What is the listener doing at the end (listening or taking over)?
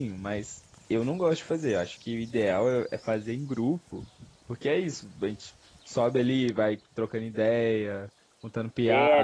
taking over